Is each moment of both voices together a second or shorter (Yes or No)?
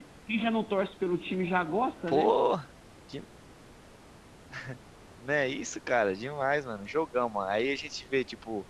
Yes